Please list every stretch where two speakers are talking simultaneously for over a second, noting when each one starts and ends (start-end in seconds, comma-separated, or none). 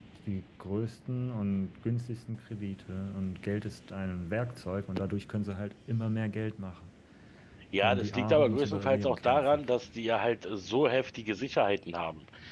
7.8-9.6